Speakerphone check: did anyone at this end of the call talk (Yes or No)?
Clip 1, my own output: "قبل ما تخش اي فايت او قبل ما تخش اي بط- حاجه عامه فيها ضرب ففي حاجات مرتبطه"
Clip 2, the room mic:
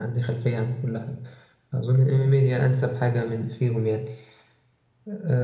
Yes